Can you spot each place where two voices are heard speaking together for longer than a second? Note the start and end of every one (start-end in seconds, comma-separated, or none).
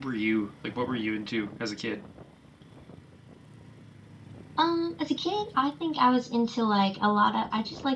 none